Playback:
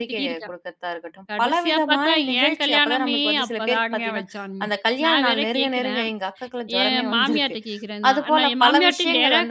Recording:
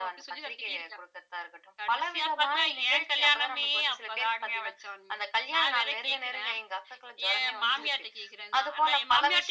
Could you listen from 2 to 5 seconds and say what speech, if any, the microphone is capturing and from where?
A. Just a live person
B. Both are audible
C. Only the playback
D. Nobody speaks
C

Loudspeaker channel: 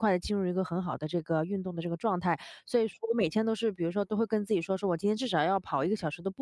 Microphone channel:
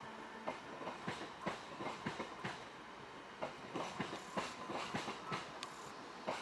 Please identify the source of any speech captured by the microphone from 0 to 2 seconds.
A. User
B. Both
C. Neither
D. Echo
C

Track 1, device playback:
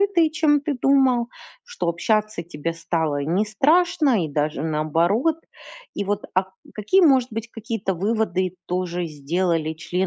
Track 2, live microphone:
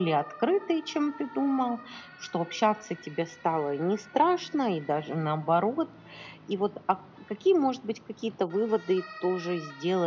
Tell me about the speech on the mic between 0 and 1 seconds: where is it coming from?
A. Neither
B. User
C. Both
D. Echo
D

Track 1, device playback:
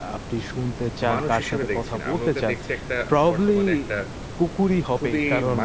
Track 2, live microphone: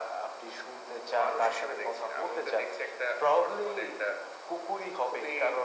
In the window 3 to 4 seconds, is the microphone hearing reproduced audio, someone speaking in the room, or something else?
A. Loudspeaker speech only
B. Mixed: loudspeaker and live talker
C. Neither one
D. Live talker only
A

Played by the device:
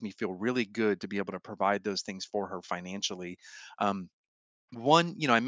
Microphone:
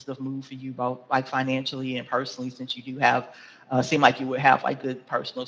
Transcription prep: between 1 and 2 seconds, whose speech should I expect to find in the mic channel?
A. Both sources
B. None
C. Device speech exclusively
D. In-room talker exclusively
D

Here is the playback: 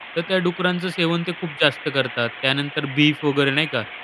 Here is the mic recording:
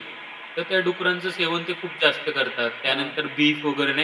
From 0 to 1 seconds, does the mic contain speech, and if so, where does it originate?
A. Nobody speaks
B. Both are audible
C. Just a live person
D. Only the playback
D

